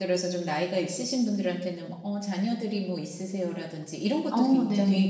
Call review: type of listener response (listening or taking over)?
listening